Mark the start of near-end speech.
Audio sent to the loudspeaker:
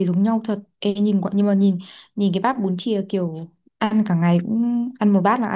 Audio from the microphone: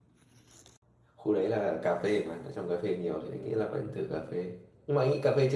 1.2 s

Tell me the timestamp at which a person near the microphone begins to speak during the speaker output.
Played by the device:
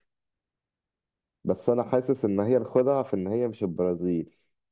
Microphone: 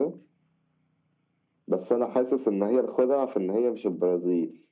none

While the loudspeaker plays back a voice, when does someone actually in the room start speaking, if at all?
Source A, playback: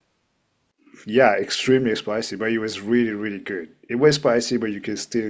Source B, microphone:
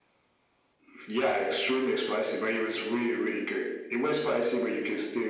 none

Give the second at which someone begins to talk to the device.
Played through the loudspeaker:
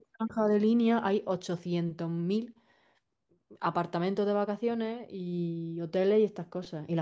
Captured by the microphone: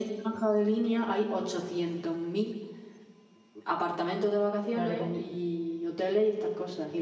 4.7 s

